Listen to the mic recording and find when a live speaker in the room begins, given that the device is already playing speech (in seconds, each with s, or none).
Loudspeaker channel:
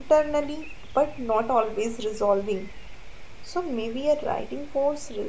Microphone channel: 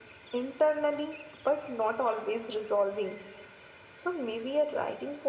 none